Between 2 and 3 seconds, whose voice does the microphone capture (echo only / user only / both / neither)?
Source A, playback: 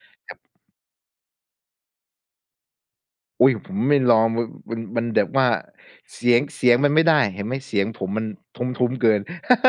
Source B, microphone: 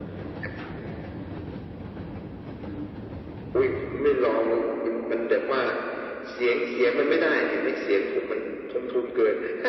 neither